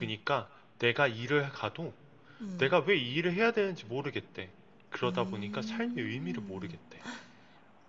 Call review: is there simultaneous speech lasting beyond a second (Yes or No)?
Yes